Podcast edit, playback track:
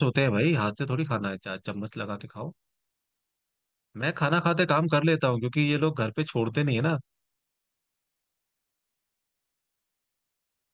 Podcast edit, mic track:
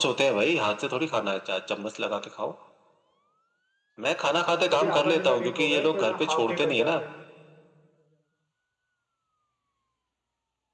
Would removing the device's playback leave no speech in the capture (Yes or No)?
No